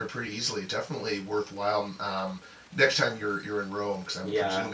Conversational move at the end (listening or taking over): taking over